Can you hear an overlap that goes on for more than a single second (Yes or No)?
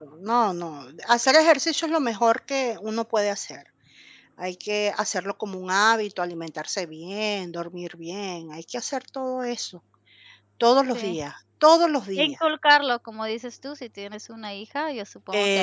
No